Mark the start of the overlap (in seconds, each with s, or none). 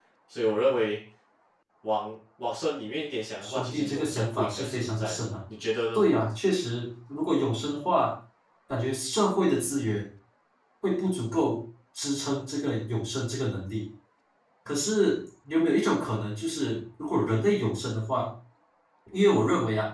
3.4 s